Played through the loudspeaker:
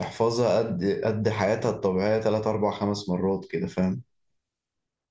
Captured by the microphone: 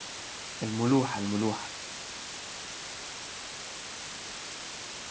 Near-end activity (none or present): present